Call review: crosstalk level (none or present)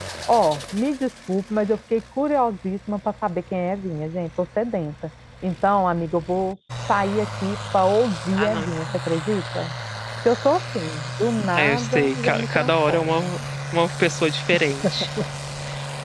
present